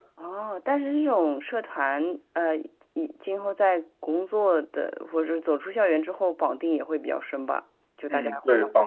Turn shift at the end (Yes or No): Yes